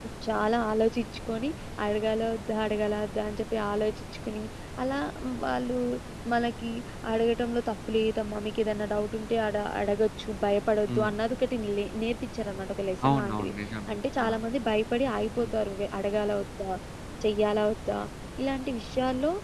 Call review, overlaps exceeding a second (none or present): none